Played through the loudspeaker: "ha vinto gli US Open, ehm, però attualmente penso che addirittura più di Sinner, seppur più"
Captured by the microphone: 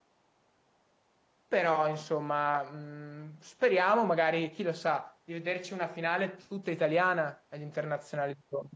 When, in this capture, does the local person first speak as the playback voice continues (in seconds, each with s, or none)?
1.5 s